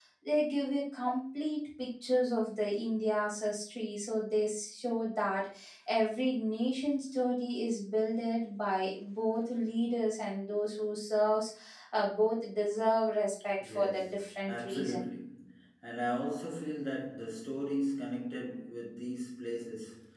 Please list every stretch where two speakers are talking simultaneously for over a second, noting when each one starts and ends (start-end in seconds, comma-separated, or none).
13.6-15.1